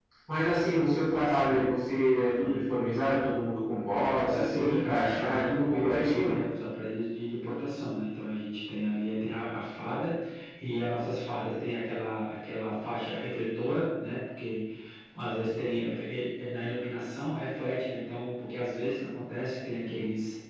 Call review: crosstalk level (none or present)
present